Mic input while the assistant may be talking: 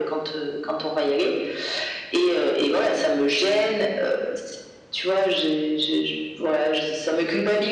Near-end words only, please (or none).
none